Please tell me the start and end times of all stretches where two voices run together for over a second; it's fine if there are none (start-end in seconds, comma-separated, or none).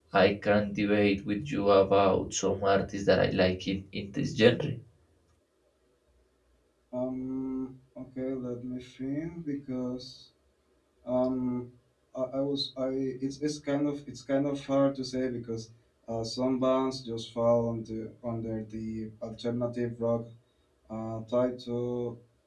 none